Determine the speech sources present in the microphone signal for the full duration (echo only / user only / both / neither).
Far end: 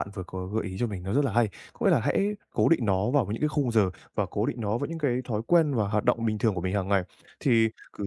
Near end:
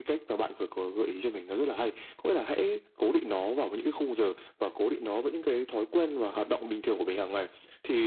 echo only